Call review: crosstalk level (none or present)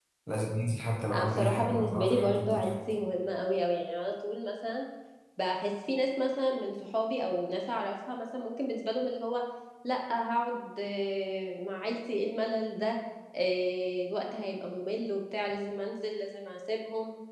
present